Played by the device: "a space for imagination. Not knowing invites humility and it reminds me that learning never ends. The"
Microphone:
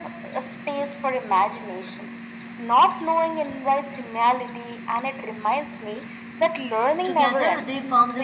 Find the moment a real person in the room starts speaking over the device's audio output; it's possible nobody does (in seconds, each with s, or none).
7.0 s